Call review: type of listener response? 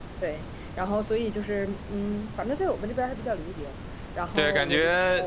taking over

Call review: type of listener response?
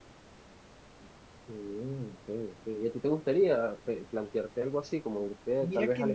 taking over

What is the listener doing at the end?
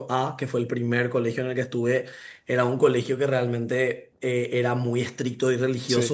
listening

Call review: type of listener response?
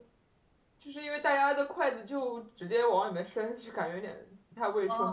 taking over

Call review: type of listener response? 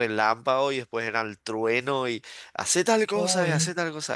listening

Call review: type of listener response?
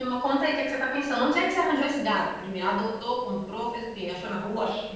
taking over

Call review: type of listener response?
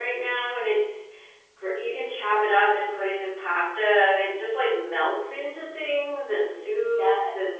listening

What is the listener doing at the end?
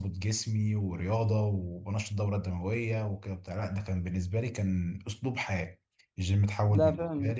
listening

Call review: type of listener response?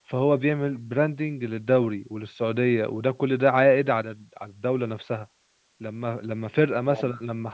listening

